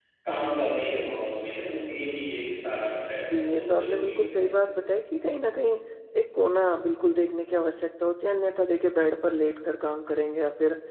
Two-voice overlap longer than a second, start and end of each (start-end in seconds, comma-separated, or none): 3.3-4.6